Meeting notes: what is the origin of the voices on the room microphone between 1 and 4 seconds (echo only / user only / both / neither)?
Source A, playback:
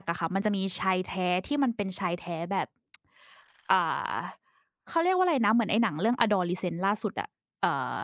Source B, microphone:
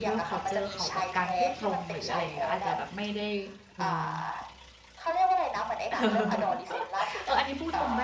both